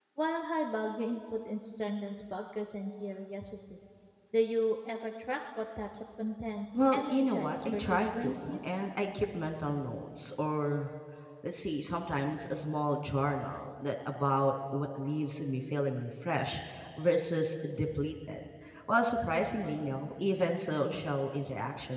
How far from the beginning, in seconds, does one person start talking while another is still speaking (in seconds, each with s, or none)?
6.7 s